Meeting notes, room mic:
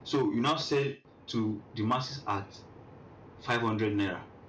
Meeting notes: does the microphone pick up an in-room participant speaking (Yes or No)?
Yes